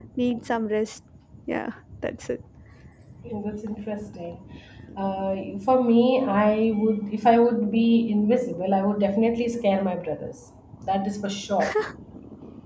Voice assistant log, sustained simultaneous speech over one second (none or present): none